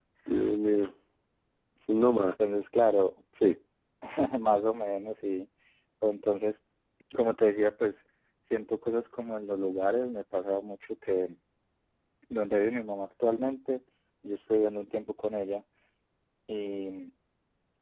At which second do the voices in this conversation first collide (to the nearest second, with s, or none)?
none